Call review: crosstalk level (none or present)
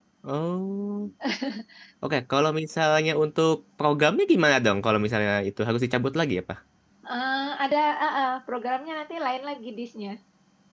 none